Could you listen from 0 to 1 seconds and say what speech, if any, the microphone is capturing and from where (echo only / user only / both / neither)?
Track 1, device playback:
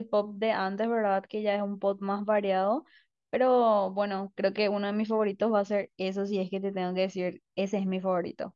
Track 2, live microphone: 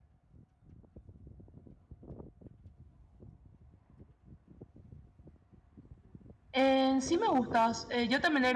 neither